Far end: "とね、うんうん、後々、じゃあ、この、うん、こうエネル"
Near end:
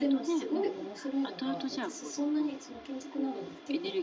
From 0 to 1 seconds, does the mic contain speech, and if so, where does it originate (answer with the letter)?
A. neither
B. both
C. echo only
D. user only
B